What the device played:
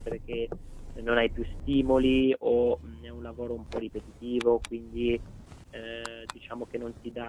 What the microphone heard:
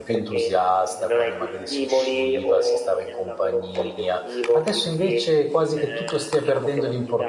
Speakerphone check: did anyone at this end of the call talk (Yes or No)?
Yes